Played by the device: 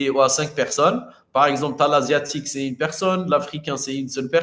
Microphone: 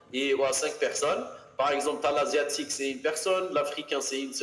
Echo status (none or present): present